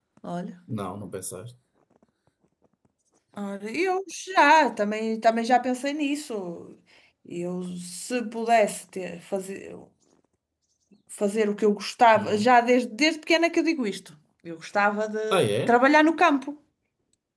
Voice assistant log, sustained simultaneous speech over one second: none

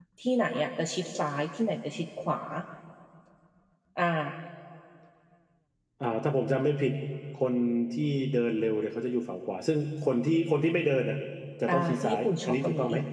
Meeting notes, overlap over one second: present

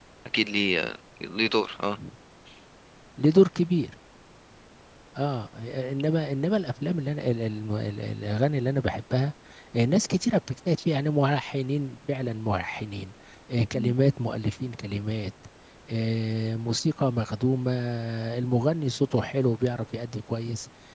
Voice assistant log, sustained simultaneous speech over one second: none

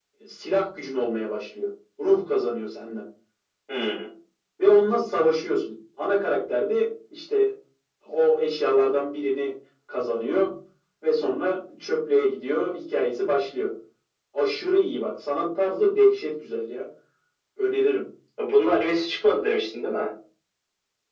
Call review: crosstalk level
none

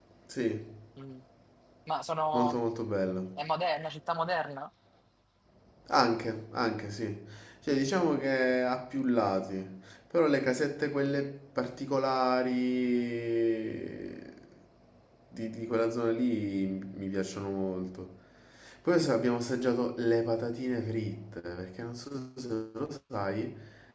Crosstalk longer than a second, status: none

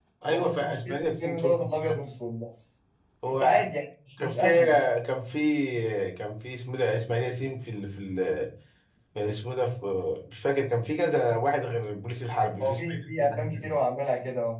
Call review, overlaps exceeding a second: present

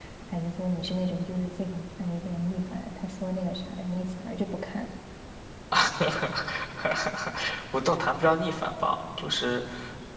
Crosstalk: none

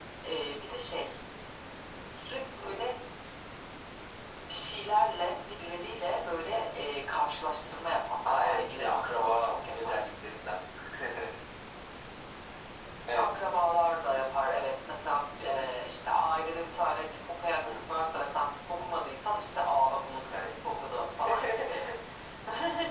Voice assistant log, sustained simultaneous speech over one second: present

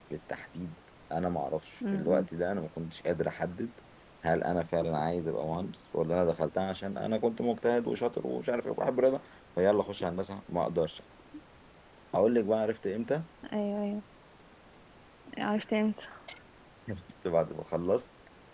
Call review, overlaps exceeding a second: none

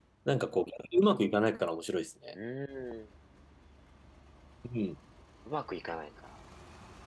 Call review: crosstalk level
none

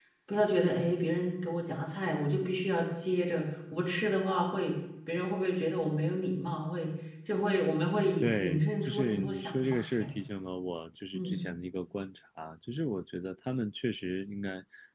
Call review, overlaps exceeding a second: present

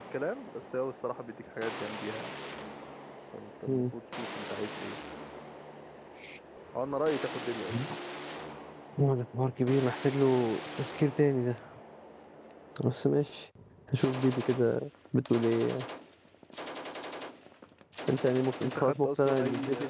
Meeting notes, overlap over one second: present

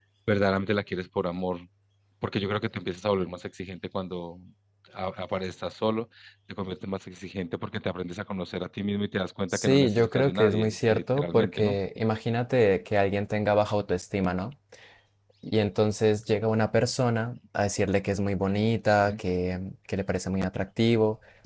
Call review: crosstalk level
present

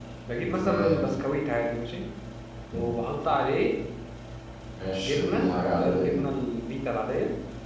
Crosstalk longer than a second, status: present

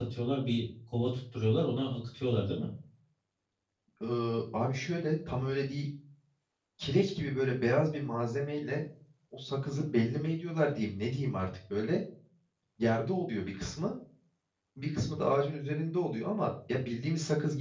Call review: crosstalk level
none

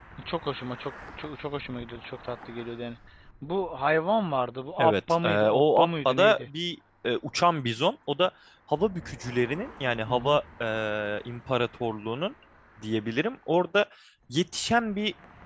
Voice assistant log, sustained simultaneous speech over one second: present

